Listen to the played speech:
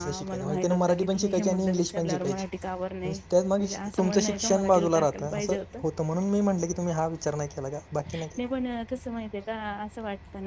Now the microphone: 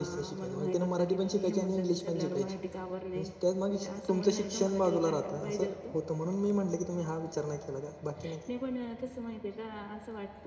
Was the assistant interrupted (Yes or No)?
No